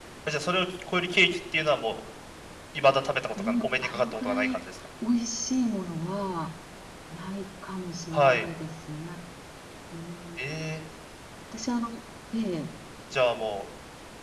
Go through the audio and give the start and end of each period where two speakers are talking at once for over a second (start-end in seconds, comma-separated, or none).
3.4-4.6